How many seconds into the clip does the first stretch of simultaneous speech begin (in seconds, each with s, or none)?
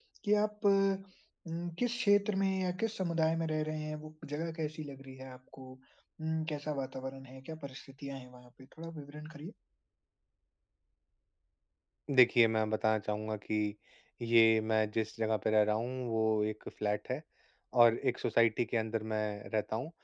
none